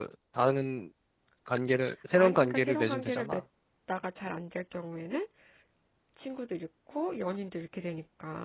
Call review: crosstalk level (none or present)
present